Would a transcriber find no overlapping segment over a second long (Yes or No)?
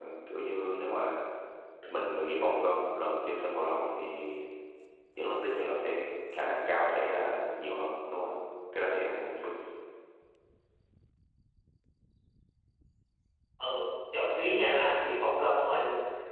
Yes